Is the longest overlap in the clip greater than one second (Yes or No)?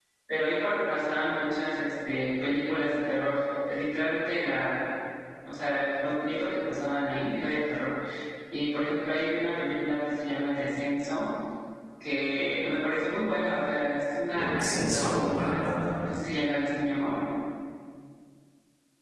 Yes